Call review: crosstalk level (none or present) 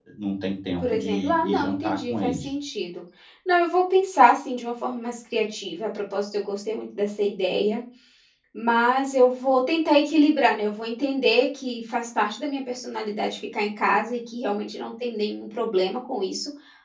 present